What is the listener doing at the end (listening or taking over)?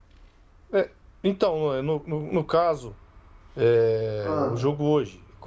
listening